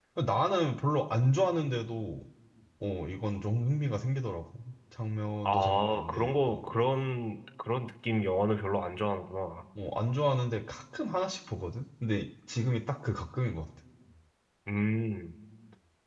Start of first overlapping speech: 5.4 s

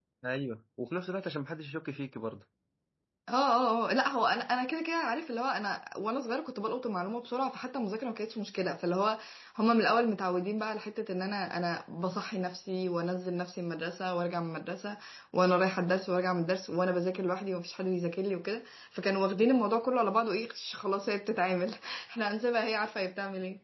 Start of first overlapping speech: none

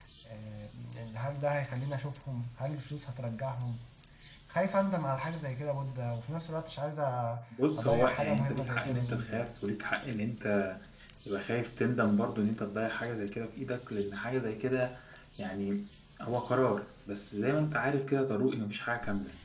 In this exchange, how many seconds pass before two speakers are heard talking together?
7.5 s

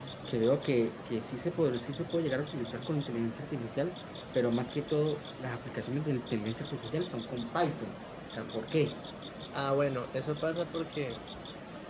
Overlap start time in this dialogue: none

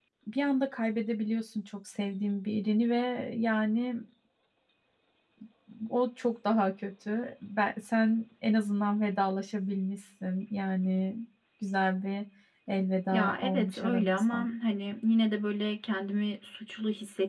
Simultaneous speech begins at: 13.1 s

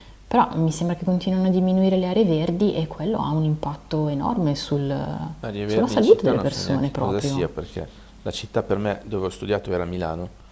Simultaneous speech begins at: 5.7 s

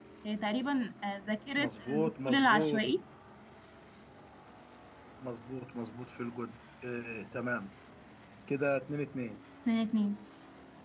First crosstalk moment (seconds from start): 1.6 s

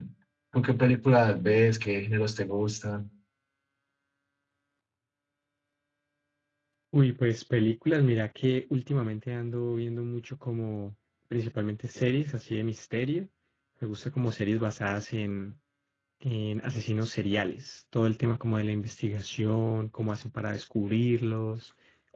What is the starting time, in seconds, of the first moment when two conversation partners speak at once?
none

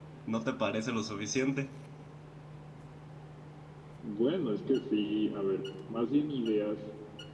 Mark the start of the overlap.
none

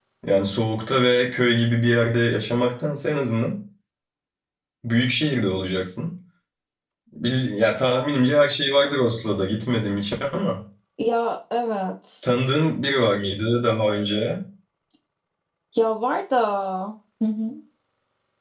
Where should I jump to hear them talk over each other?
none

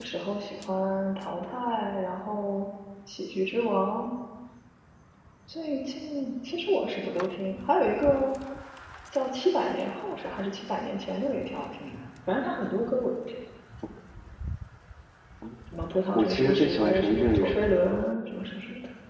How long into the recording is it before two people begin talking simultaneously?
16.1 s

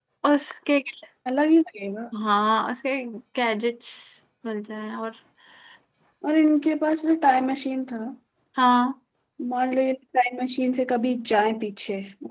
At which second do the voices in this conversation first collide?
none

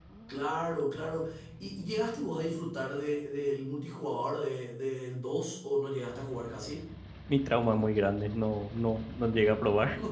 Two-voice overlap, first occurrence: none

